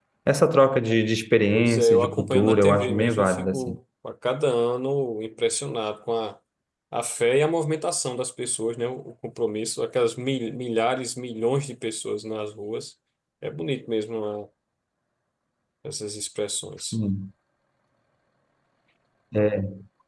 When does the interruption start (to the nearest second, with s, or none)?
2 s